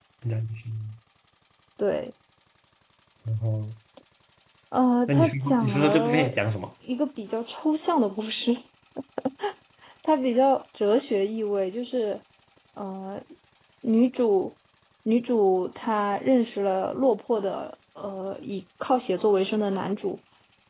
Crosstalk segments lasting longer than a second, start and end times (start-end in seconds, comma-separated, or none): 5.1-6.3